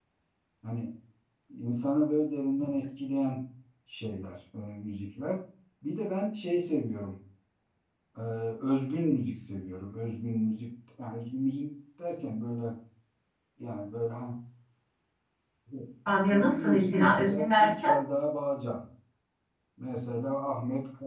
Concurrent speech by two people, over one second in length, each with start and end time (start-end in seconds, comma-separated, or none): 16.3-18.0